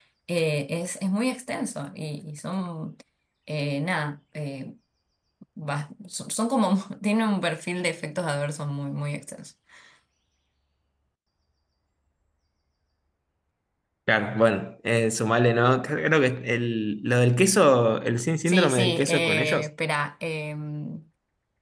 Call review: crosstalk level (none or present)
present